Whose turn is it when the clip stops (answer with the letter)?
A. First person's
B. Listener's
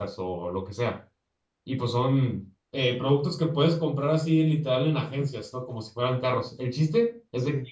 A